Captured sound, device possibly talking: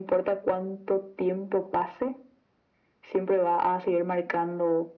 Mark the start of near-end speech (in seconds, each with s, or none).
none